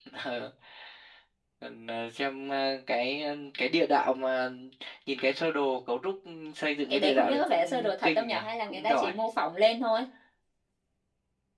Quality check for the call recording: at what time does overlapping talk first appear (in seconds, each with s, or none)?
6.9 s